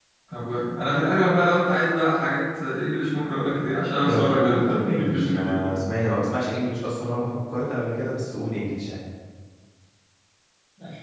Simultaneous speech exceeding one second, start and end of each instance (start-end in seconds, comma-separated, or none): 4.1-5.8